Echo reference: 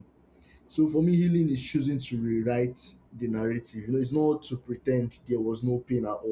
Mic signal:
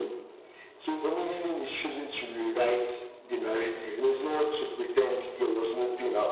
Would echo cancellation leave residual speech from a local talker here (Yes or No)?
No